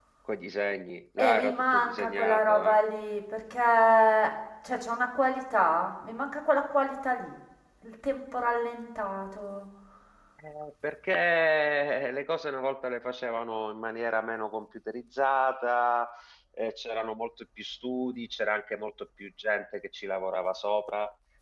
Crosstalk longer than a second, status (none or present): present